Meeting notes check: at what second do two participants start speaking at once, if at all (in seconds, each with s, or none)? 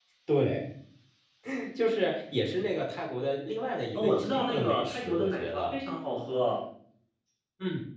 4.0 s